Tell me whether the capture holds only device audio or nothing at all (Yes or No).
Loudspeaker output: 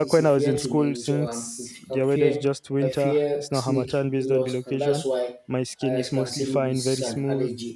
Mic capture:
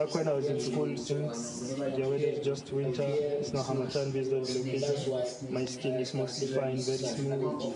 No